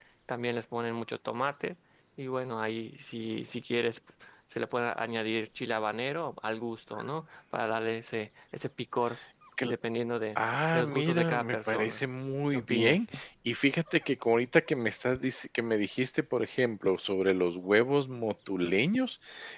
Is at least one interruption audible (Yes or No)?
Yes